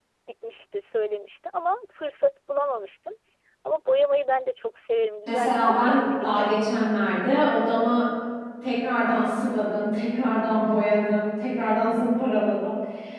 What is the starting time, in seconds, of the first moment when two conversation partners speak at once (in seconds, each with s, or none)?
5.3 s